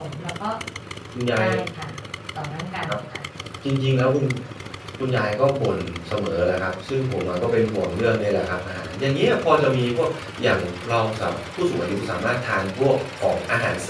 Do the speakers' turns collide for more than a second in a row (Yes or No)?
No